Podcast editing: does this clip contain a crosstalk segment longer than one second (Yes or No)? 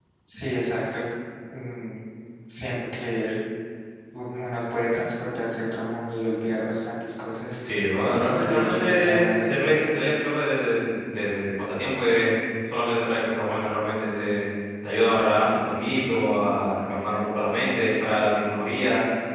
Yes